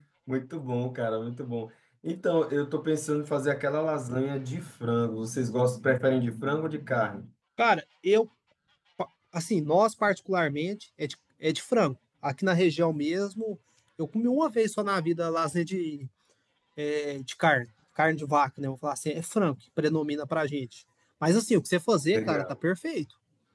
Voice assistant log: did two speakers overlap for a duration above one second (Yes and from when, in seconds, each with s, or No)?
No